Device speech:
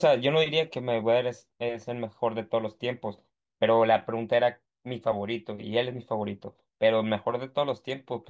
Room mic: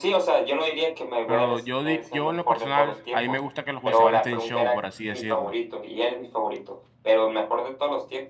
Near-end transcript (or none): Pero yo, di- yo en lo personal, a mí me gusta que los boxeadores estén show, por así decirlo.